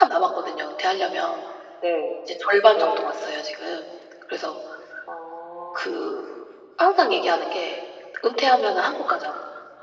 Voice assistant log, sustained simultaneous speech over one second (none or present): none